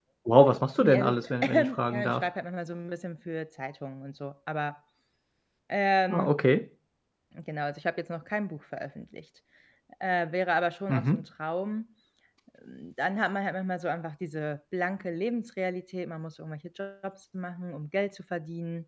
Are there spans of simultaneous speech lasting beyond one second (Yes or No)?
Yes